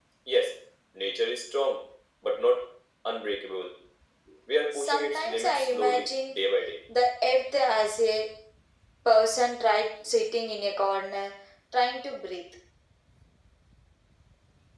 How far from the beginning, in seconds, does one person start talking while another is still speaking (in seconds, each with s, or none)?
4.7 s